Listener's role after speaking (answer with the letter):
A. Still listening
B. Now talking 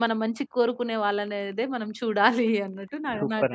B